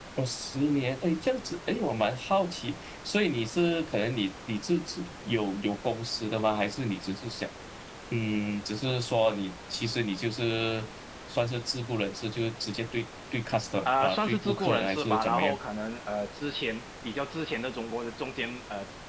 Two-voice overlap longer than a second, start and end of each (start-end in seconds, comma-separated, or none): 13.8-15.6